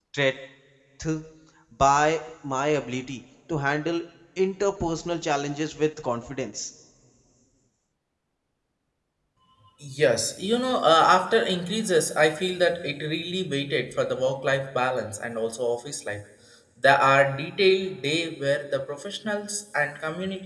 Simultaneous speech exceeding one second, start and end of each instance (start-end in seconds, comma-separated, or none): none